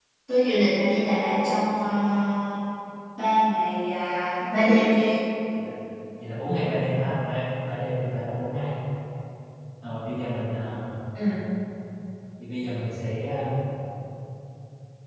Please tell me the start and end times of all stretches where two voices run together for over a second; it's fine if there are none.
none

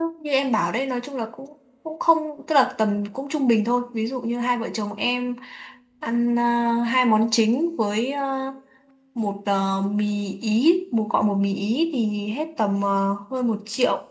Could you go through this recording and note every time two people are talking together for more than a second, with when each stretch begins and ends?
none

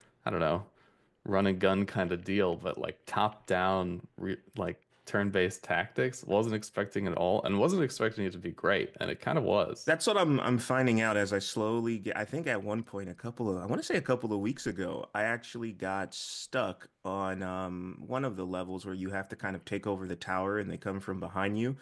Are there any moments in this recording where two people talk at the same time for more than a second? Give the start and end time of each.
none

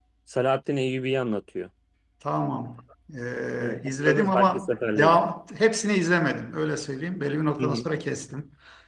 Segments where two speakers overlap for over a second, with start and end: 3.6-5.2

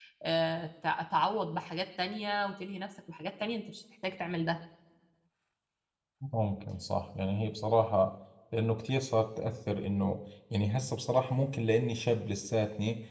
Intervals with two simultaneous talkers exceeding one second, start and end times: none

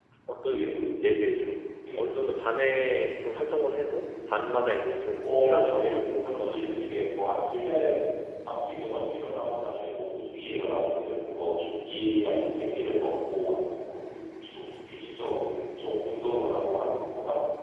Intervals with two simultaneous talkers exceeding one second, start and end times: 5.2-6.9

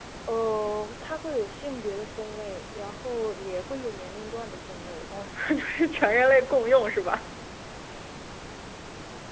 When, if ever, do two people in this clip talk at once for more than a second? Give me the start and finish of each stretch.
none

